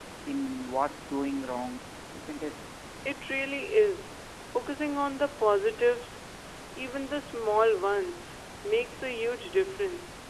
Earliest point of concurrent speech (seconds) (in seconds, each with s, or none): none